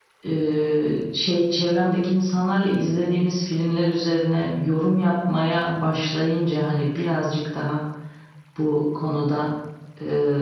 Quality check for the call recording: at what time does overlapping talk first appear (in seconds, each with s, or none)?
none